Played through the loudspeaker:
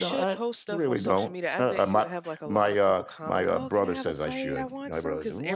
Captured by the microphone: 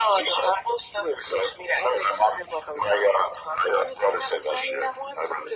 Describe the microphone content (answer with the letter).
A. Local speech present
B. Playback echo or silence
B